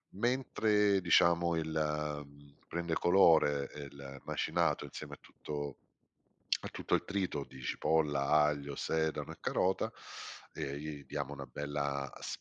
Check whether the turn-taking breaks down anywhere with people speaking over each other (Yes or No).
No